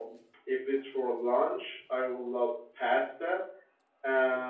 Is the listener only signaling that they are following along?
Yes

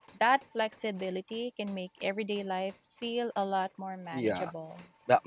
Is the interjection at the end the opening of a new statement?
Yes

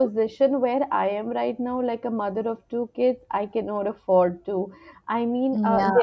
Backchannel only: Yes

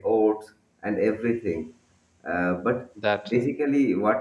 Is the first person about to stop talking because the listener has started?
No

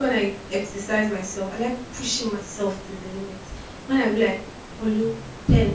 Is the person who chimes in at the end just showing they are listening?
Yes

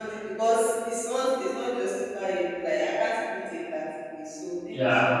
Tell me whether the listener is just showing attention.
No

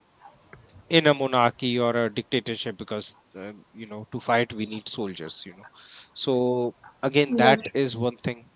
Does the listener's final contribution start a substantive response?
No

